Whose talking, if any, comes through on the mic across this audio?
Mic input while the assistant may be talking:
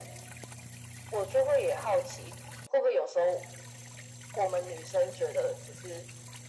echo only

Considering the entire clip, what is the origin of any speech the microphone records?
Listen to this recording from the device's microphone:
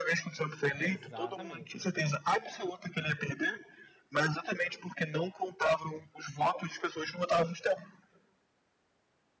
both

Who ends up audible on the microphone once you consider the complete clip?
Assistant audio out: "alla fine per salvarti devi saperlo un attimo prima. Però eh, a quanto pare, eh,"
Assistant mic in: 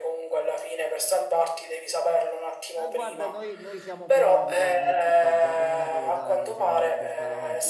both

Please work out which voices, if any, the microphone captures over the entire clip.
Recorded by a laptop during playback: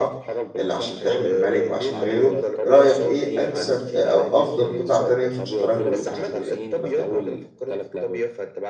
both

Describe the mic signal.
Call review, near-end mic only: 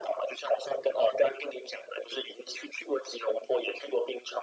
echo only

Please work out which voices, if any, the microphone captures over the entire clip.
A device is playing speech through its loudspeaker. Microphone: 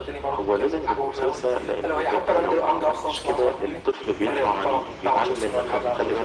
echo only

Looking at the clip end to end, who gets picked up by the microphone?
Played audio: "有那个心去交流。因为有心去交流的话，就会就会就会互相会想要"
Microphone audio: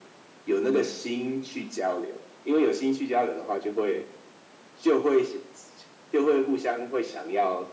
both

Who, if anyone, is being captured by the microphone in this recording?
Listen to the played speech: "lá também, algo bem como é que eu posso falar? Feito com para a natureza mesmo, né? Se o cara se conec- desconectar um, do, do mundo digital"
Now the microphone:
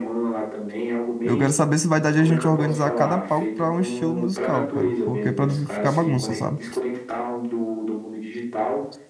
both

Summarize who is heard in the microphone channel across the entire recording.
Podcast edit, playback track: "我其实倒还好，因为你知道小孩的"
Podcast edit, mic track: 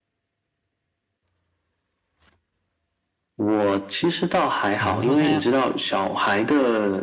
both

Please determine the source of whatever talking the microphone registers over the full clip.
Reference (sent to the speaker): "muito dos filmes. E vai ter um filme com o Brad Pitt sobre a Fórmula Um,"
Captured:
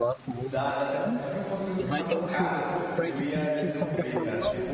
both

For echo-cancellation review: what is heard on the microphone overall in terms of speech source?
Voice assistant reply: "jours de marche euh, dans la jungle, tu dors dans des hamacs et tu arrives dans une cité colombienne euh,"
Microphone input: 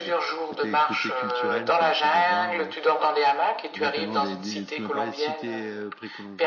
both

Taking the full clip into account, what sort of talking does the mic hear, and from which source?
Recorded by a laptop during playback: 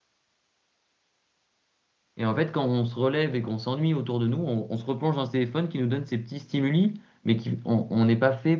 user only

